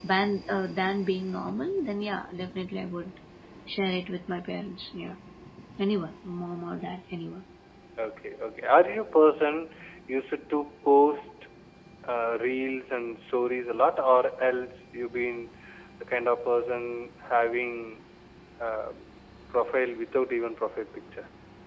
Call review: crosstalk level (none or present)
none